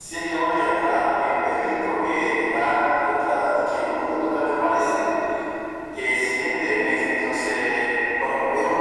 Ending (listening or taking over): listening